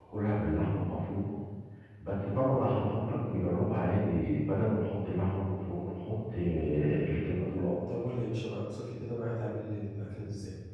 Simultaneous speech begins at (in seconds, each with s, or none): none